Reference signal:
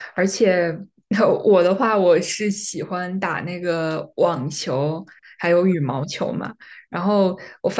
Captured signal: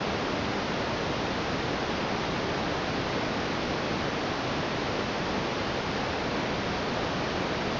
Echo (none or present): none